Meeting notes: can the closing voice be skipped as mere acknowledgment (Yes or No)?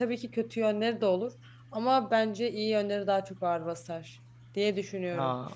No